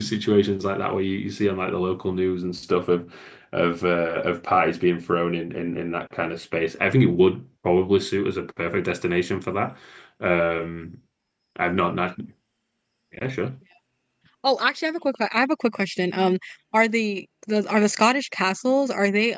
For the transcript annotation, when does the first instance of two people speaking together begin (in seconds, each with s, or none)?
none